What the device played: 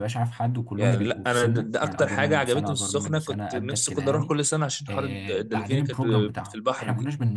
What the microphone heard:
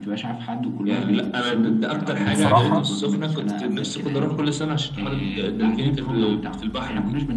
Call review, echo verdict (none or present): present